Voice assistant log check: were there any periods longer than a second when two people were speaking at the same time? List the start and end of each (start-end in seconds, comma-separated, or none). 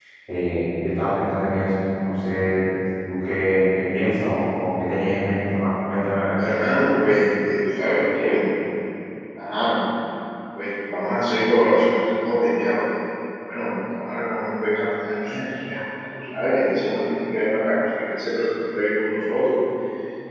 none